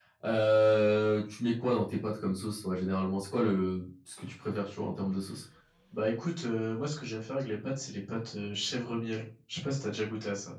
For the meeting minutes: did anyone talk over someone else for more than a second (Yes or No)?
No